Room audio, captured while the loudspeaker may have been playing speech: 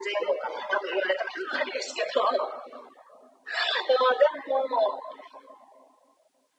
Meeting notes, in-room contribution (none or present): none